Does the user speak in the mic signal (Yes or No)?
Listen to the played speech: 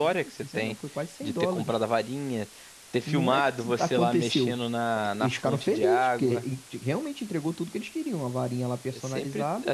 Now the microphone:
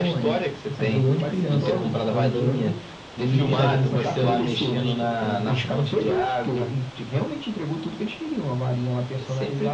Yes